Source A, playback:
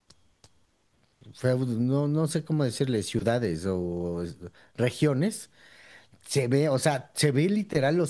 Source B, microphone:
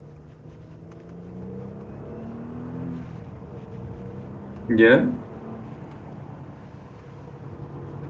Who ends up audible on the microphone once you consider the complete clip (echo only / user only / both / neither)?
user only